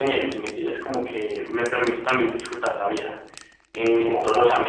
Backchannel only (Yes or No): No